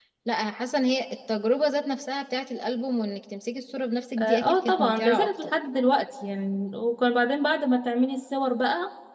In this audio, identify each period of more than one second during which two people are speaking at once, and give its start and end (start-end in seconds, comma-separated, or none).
4.2-5.5